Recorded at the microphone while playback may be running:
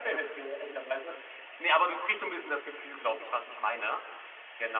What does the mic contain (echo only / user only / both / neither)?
echo only